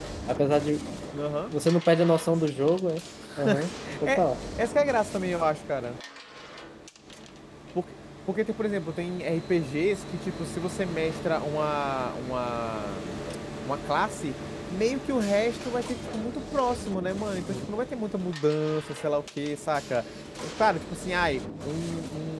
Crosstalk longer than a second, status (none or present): none